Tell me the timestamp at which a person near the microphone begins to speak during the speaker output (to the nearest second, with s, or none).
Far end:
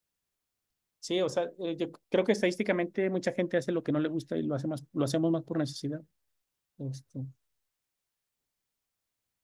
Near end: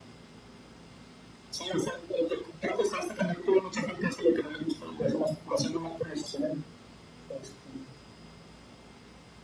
none